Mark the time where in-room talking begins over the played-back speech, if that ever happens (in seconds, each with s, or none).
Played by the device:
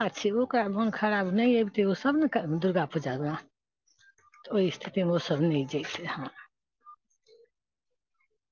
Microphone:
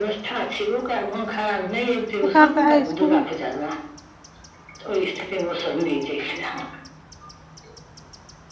2.2 s